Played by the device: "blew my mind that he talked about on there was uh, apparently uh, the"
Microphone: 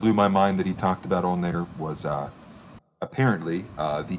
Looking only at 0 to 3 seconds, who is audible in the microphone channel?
echo only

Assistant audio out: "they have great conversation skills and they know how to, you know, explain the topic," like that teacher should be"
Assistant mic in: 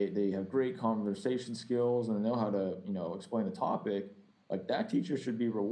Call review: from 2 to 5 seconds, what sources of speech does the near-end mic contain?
echo only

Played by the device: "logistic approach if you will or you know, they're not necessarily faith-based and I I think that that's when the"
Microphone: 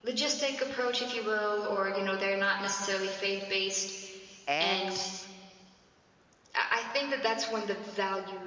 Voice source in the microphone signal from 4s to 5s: both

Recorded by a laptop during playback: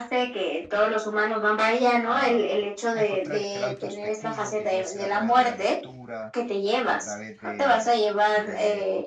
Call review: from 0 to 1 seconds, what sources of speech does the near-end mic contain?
echo only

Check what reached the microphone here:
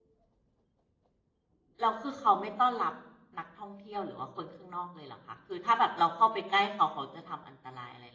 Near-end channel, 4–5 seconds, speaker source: user only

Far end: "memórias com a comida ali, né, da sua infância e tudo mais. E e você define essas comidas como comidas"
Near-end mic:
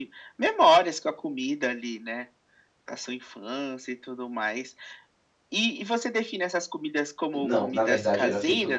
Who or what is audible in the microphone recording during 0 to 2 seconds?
echo only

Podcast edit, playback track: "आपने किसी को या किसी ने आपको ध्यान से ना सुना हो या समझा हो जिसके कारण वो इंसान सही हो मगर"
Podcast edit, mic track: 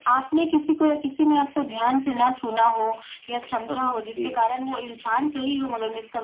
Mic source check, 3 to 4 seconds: both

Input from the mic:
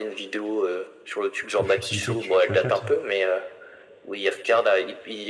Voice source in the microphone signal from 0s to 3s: both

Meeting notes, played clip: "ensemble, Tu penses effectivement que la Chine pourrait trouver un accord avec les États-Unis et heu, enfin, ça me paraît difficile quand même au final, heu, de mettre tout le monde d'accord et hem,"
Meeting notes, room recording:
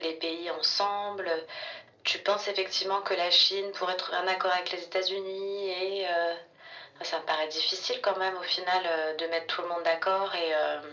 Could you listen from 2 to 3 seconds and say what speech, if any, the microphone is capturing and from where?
echo only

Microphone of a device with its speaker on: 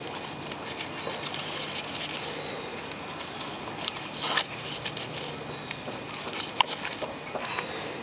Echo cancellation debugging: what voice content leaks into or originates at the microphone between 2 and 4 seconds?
neither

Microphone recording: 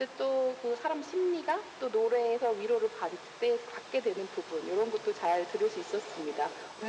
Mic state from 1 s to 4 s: echo only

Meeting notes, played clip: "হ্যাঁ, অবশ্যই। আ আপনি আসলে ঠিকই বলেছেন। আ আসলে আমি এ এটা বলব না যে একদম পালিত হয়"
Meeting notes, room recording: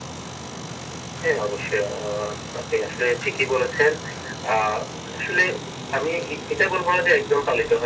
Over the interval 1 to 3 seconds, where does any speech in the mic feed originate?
echo only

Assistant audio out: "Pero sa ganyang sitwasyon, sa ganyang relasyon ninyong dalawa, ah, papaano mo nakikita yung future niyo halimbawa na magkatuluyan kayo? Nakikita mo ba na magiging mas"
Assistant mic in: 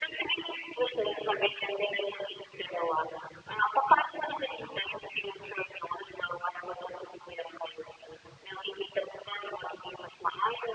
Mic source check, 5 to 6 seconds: echo only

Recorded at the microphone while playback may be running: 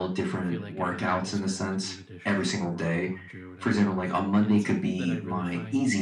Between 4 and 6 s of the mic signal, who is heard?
both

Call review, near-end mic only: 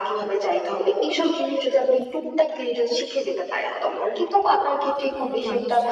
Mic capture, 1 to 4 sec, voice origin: echo only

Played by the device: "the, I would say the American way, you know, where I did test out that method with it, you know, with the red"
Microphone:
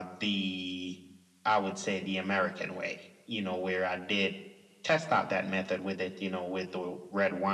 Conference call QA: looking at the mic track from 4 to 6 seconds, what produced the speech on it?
echo only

